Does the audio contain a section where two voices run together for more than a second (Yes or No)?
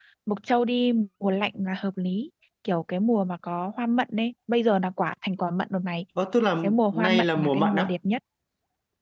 Yes